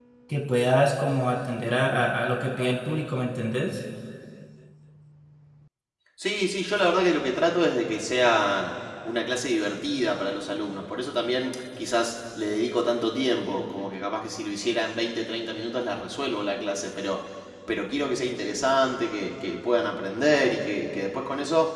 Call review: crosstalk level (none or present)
none